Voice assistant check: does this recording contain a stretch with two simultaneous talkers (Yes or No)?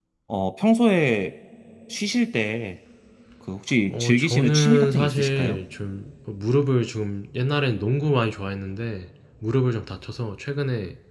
Yes